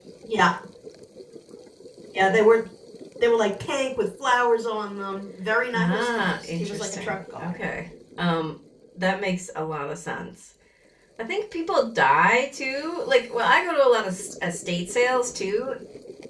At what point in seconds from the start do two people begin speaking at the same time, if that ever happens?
6 s

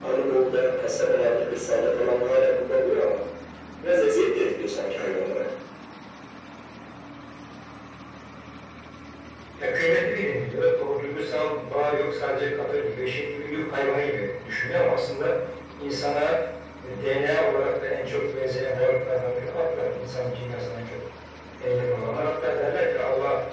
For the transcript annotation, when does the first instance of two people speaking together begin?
none

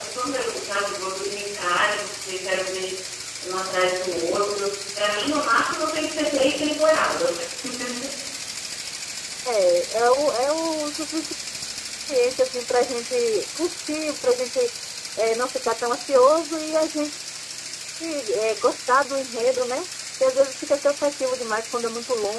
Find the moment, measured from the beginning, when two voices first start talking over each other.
none

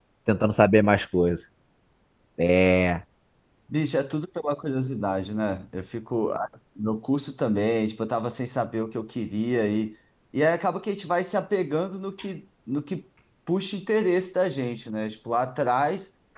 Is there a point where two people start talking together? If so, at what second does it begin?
none

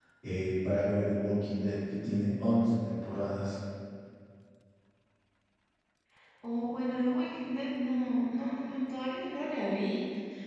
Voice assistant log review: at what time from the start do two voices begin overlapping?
none

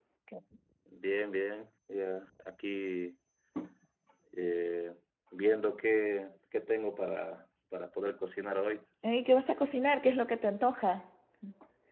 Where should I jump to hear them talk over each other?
none

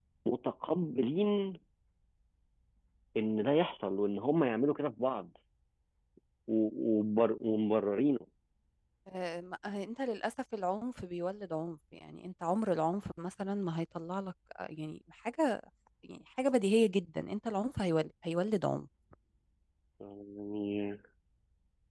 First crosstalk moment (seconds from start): none

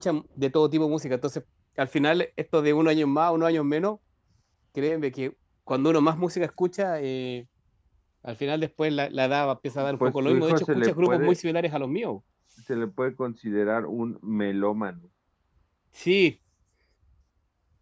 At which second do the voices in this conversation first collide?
10 s

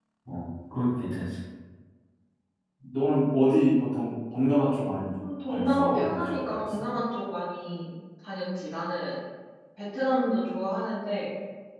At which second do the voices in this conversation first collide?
5 s

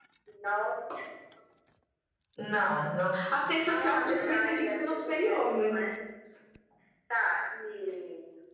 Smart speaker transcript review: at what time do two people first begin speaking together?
4 s

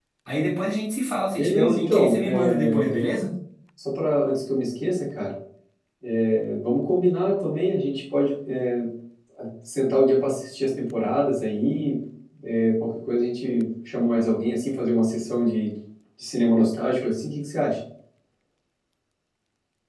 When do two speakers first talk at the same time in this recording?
1 s

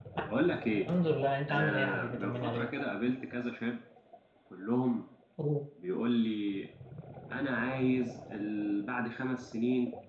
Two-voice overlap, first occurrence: 1 s

